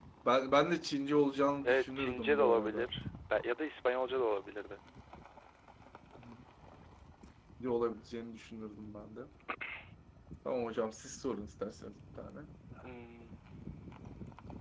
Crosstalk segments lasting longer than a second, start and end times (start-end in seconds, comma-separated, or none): 1.6-2.9